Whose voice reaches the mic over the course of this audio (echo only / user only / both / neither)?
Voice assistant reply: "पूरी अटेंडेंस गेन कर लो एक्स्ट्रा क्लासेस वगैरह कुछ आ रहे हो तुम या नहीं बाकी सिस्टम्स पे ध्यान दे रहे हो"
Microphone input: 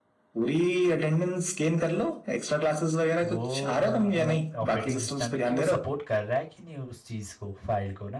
both